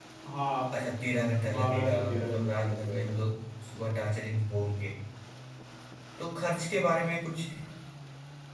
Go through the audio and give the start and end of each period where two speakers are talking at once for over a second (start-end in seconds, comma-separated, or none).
1.5-3.4